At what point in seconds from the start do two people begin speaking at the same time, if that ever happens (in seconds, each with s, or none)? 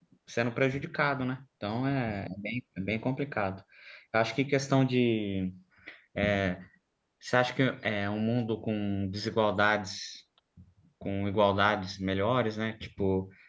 none